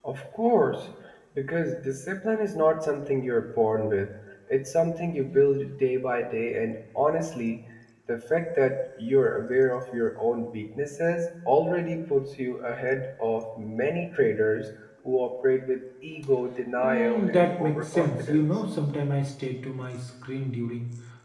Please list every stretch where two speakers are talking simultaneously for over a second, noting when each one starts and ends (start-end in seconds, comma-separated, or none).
16.8-18.4